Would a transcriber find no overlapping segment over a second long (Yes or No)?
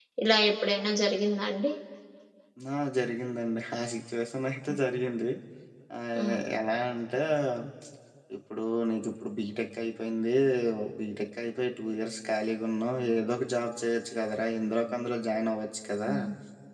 Yes